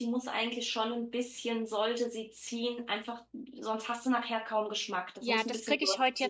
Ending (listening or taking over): taking over